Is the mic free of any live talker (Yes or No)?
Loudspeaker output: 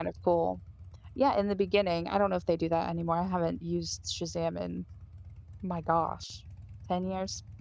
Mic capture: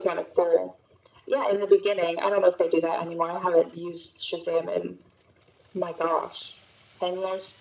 Yes